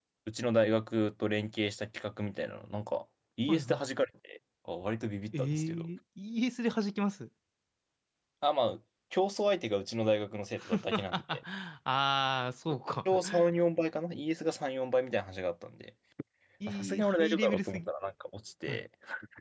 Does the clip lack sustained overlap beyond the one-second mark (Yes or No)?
No